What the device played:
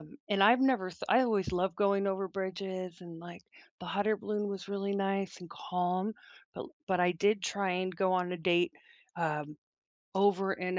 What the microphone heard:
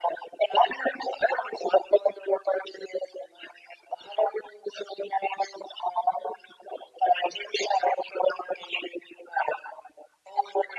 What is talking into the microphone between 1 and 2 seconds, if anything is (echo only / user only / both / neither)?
echo only